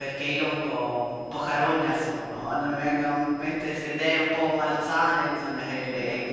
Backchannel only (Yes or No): No